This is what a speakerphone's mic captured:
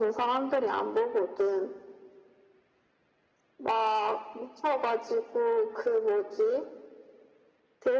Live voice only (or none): none